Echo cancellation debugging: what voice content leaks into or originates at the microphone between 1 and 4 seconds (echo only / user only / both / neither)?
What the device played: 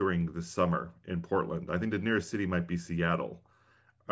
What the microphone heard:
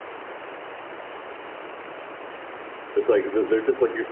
user only